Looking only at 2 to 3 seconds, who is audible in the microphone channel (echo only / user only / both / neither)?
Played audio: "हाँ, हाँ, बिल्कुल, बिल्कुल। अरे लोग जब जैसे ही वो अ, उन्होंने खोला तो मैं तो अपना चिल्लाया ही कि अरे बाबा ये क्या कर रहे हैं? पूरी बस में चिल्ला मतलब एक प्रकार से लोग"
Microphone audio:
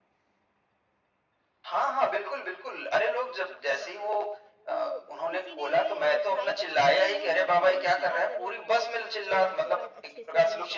echo only